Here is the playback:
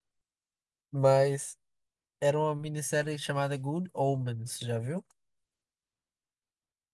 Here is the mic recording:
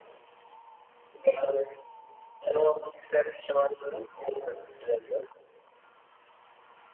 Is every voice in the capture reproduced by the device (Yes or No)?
Yes